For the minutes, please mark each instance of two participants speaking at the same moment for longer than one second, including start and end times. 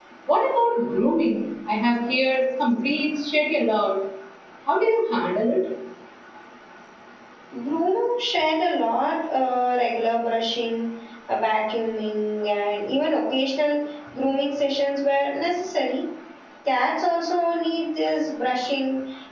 none

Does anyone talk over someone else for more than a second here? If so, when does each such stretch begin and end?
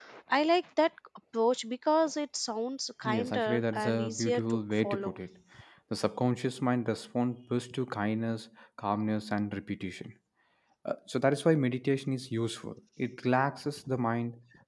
3.0-5.1

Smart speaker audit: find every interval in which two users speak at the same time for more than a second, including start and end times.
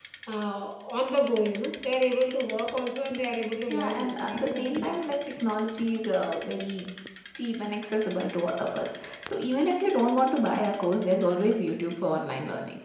3.7-5.0

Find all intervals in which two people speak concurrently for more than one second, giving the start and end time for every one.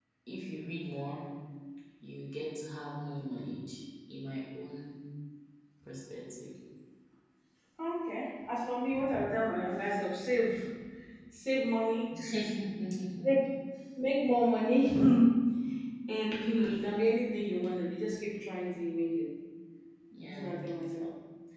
none

